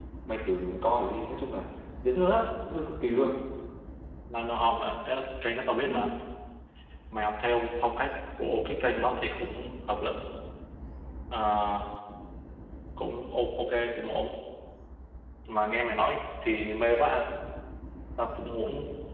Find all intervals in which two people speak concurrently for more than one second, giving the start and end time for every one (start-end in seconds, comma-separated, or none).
none